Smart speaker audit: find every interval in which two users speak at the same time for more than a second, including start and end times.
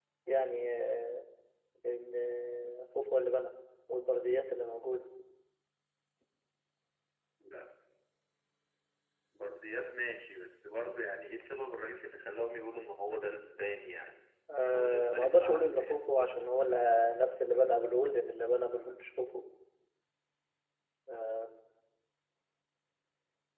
14.7-16.0

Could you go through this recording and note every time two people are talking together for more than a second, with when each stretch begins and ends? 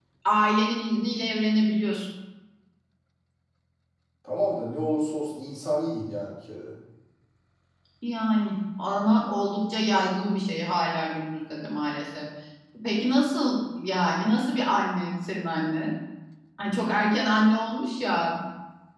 none

